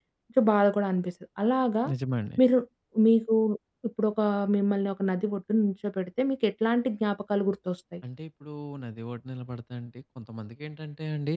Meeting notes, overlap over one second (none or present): none